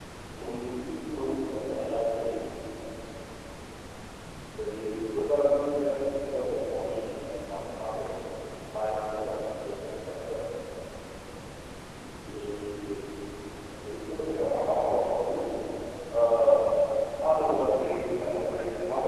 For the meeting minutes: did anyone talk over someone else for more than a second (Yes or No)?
No